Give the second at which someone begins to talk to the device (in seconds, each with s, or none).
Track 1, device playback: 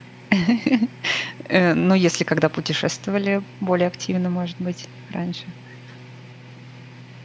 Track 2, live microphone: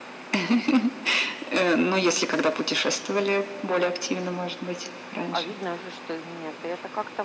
5.3 s